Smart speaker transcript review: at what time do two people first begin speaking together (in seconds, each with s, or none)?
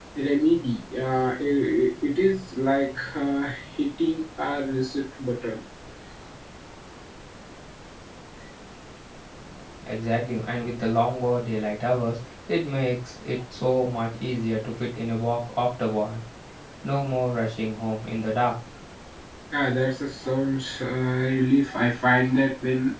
none